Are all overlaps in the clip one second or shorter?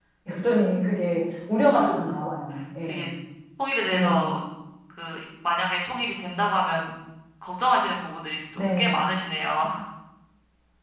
Yes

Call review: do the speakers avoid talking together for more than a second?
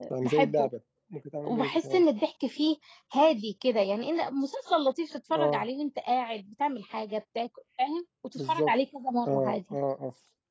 Yes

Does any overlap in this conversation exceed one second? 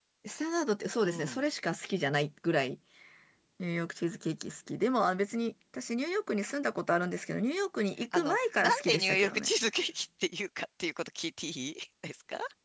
Yes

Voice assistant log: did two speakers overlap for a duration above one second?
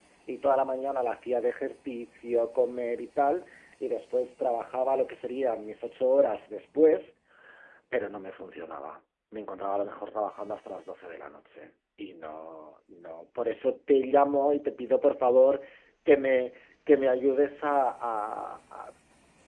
No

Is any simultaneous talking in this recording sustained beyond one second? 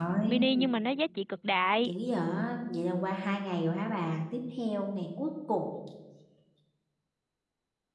No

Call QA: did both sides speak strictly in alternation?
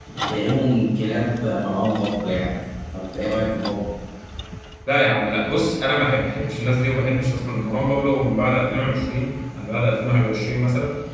Yes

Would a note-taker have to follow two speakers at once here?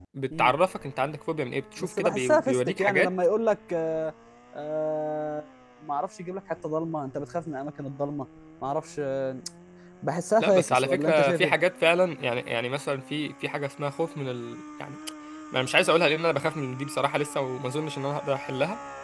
Yes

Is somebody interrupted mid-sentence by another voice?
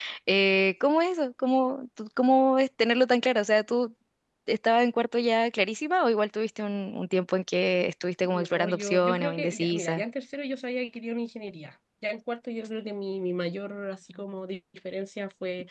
Yes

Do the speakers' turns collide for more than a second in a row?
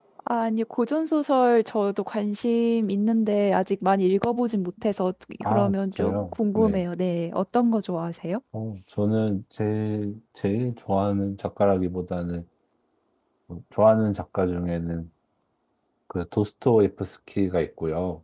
Yes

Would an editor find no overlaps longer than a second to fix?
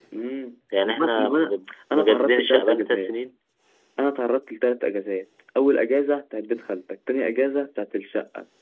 No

